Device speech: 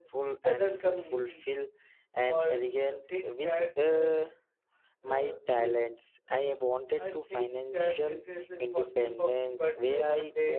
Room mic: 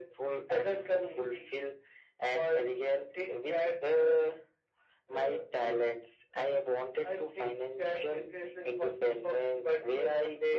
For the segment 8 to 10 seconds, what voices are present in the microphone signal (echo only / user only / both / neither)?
echo only